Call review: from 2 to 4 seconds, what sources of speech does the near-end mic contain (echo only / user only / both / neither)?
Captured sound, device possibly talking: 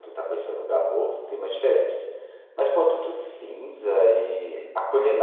user only